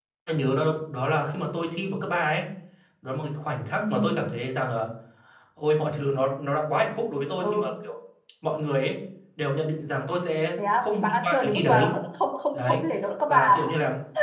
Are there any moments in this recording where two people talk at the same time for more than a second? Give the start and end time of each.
10.6-11.9

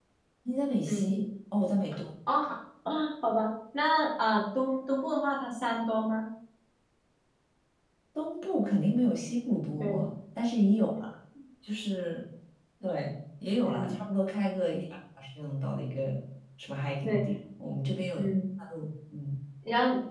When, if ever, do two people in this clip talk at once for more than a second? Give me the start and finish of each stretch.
none

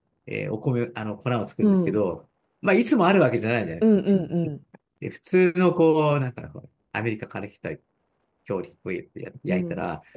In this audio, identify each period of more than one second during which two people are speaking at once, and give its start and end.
none

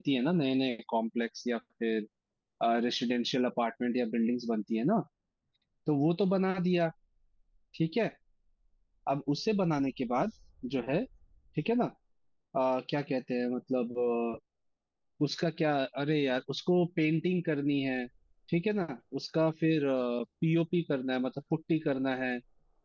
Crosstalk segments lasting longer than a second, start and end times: none

